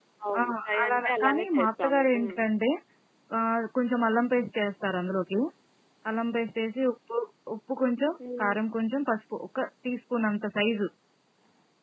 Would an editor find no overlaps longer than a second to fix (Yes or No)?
No